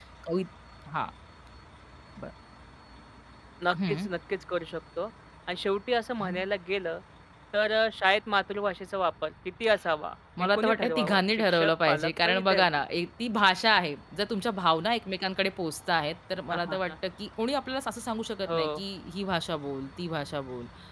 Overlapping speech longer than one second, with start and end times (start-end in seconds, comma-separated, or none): 10.6-12.7